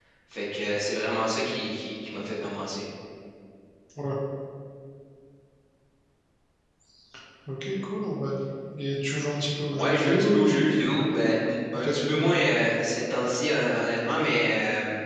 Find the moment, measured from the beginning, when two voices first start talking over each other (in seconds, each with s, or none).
9.7 s